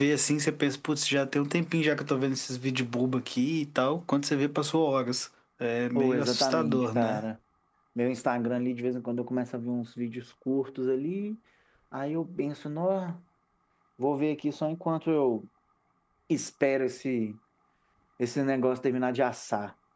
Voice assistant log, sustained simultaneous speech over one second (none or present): present